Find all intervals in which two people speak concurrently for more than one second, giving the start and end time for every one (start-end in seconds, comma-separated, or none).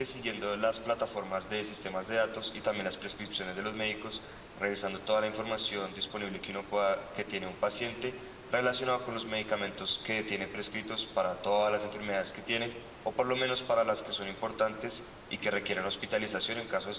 none